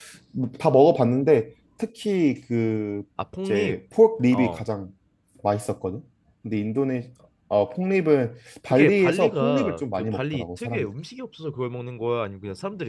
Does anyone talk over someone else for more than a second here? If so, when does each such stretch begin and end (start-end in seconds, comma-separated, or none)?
8.7-10.9